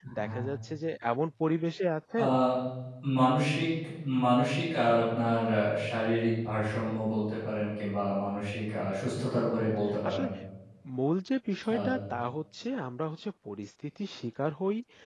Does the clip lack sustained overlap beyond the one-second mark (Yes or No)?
Yes